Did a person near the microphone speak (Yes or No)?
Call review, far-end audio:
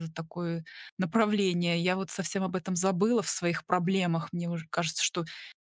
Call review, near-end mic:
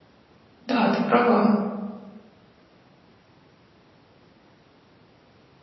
Yes